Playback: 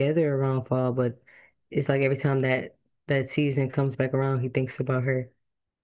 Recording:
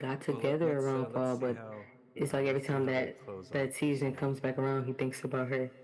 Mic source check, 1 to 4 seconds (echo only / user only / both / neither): both